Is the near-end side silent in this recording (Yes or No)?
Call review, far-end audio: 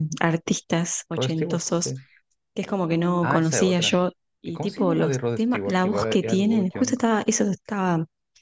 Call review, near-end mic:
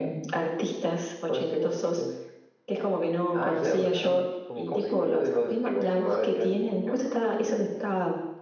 No